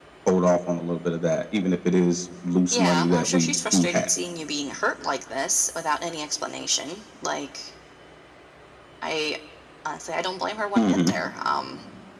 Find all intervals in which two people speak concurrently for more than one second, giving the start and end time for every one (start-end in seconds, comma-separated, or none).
2.7-4.1